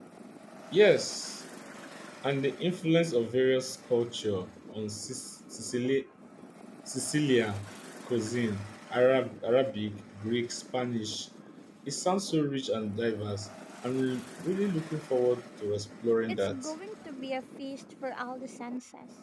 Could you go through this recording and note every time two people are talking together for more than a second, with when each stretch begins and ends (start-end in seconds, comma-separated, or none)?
none